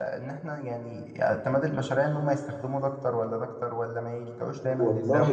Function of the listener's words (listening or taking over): taking over